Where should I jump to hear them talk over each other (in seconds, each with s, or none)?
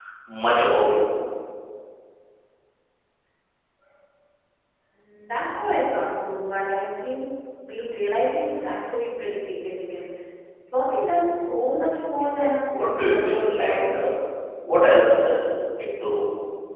12.7 s